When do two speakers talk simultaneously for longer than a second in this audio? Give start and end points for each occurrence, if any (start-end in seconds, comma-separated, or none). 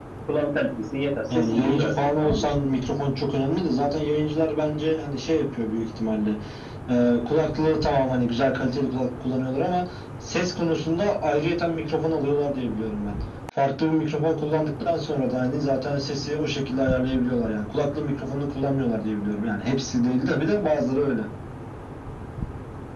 1.3-2.5